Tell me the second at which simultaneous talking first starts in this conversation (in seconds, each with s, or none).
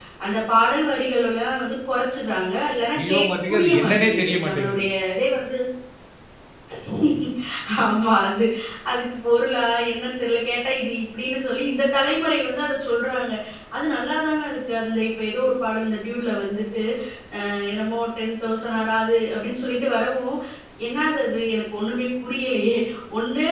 3.0 s